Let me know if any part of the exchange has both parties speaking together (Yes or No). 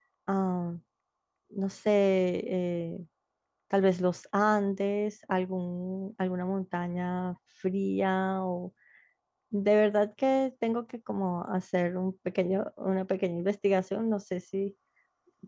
No